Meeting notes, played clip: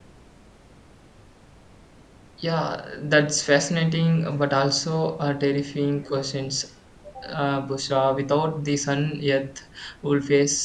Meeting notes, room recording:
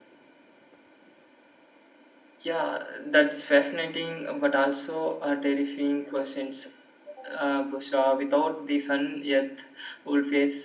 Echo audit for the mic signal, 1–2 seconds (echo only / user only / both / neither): neither